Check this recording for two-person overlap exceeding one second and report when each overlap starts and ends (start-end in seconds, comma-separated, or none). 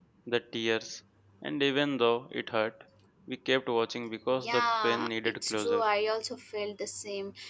4.4-5.8